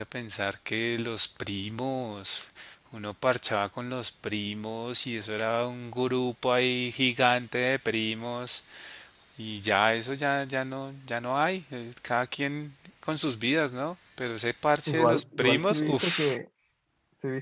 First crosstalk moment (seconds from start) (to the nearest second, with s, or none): 15 s